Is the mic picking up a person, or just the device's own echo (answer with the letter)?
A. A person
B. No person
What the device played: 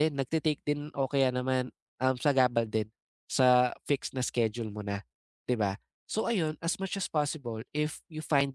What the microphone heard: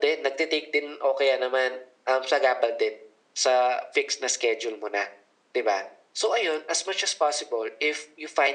B